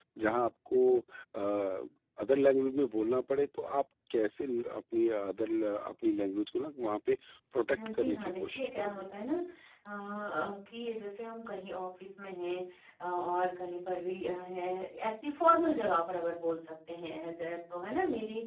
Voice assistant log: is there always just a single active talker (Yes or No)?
No